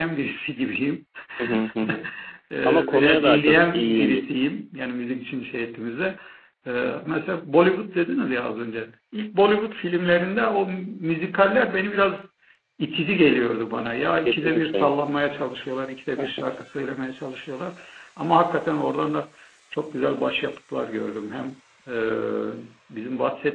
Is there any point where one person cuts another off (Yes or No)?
Yes